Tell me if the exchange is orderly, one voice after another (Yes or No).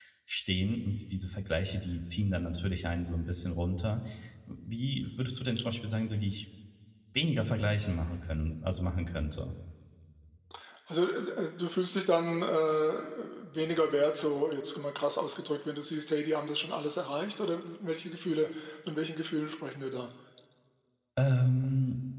Yes